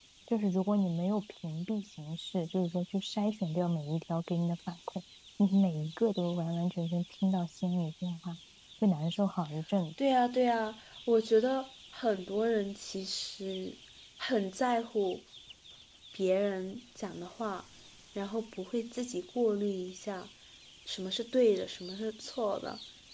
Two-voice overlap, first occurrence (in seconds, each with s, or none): none